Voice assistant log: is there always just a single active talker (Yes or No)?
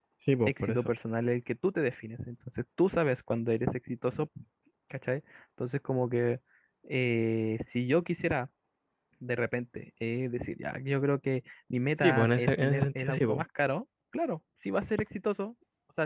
No